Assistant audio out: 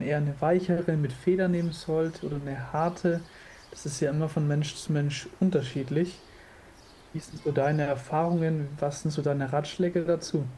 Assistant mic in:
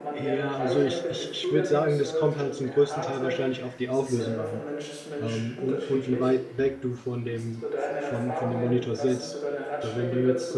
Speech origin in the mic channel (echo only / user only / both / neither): both